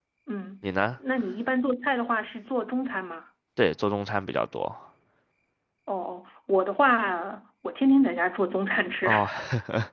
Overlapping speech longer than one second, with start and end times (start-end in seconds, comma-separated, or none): none